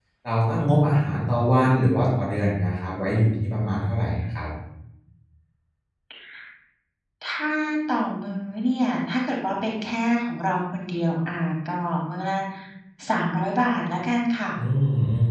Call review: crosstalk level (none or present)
none